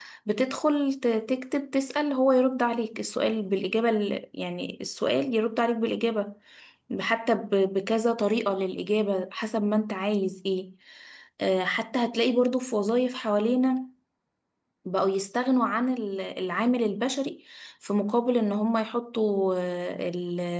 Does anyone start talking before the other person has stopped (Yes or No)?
No